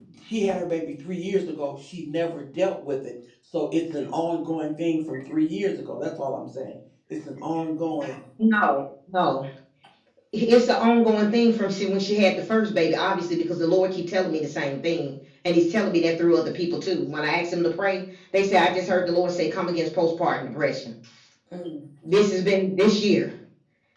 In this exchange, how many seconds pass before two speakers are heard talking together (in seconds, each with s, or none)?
none